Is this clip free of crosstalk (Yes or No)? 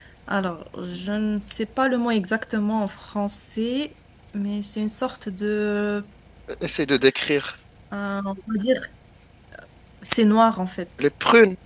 Yes